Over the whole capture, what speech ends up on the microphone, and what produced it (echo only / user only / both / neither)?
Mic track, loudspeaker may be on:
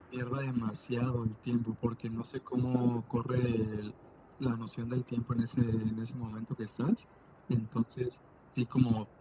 echo only